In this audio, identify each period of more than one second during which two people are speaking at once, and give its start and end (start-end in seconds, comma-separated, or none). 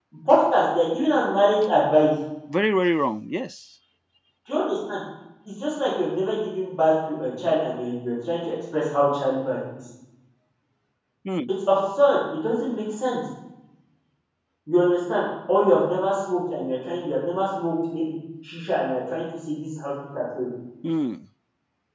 none